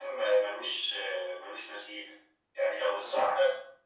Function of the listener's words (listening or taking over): listening